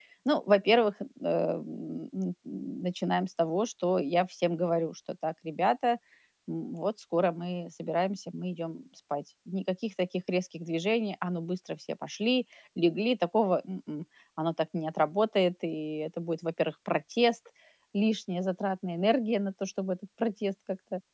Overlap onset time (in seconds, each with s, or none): none